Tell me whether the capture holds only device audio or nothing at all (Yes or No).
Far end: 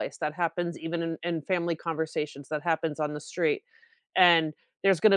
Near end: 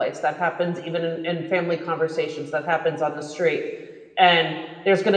Yes